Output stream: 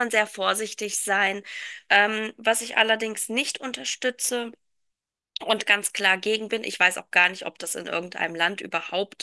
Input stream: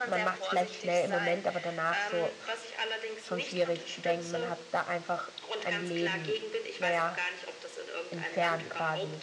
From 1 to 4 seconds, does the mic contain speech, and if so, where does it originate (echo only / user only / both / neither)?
both